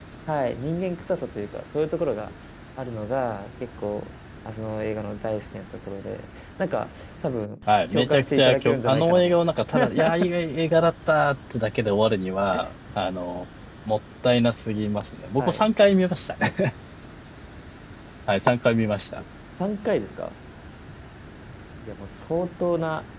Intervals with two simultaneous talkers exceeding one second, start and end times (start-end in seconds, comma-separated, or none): 7.9-9.3